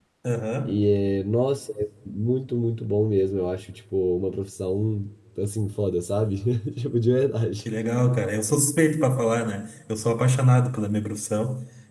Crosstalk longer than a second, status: none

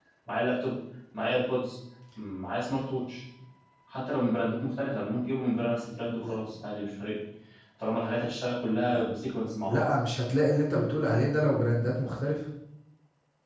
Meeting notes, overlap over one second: none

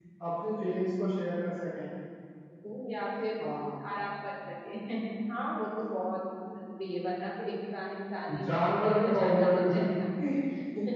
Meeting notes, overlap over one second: present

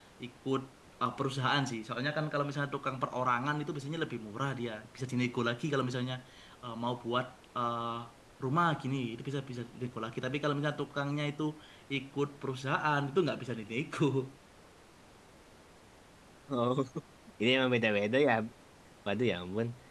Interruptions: none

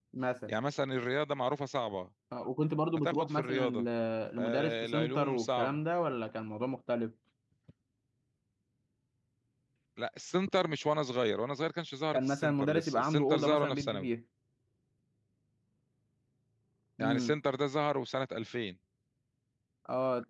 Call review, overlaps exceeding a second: present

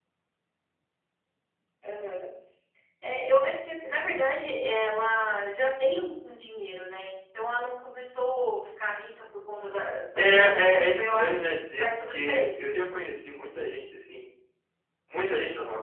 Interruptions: present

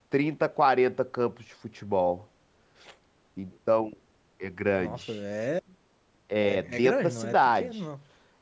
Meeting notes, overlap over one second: present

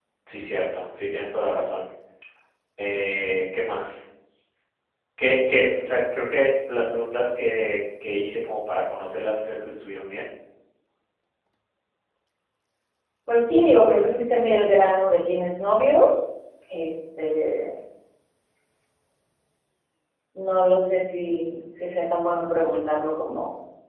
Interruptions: none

